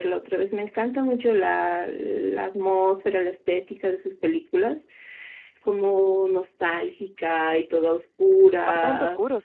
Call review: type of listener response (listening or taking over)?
taking over